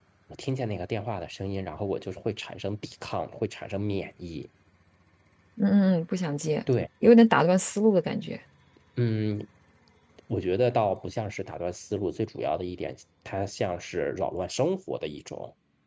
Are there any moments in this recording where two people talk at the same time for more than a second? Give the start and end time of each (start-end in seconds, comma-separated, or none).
none